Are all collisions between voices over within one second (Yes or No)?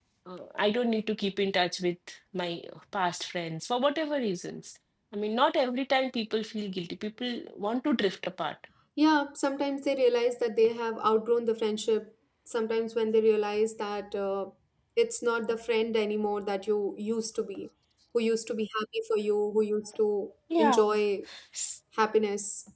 Yes